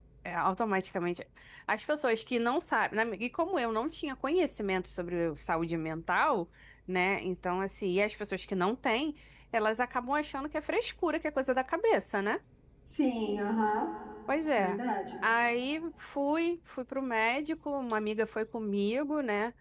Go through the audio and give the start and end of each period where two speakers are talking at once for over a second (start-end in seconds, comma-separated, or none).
none